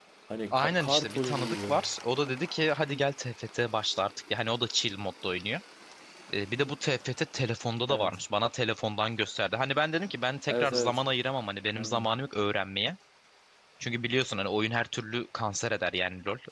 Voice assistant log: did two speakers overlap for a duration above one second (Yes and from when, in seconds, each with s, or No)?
Yes, from 0.5 s